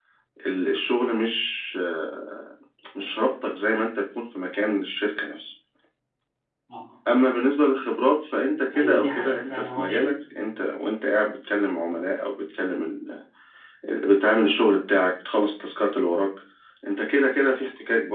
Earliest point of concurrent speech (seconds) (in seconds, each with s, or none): 8.7 s